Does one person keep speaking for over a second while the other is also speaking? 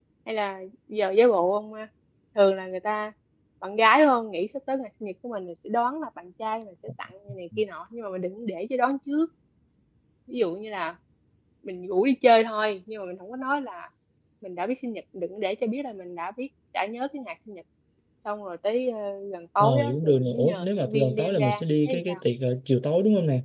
Yes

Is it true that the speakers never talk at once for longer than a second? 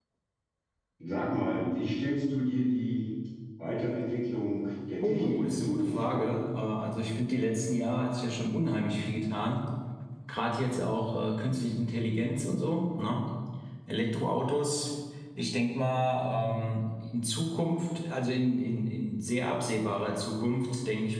No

